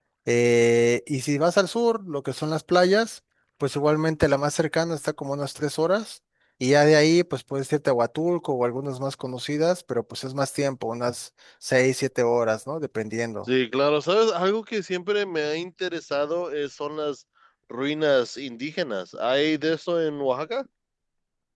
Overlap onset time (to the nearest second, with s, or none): none